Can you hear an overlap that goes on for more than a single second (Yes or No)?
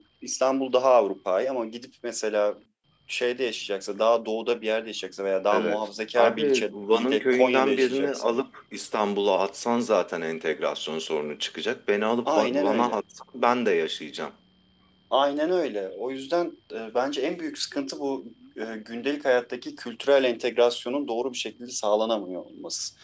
Yes